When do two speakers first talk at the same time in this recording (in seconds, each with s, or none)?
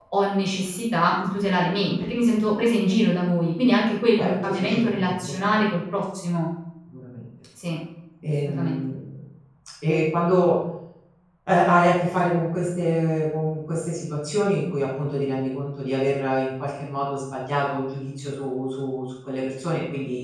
4.1 s